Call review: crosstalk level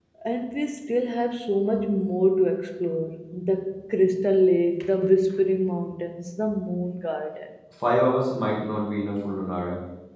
none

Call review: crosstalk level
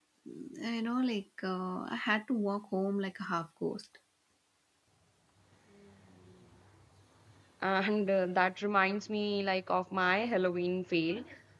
none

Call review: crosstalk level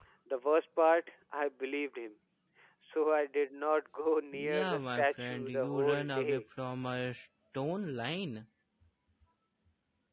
present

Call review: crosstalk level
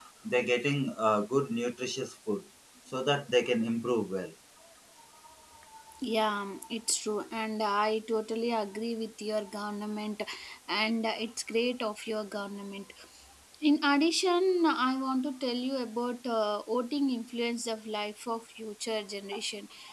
none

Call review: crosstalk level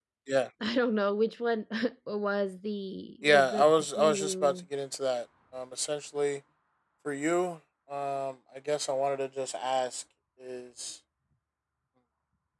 present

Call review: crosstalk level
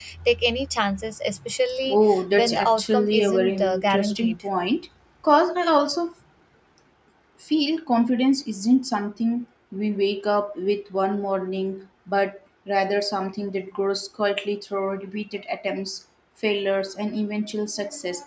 present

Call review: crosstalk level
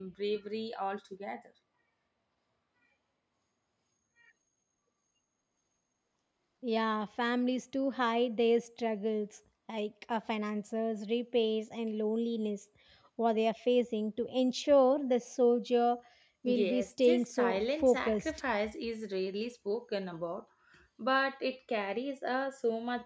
present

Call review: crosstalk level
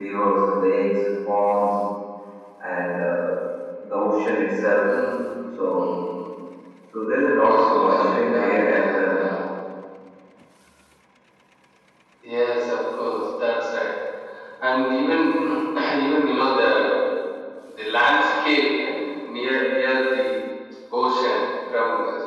present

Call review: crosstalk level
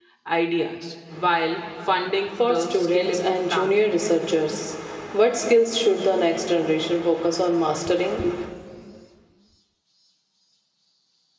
present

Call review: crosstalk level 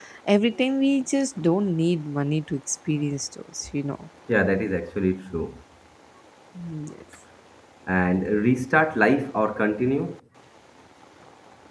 none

